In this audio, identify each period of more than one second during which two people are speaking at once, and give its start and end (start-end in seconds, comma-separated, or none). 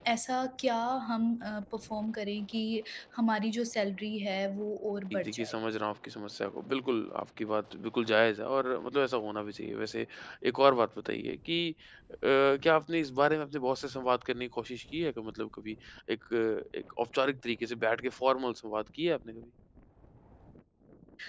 none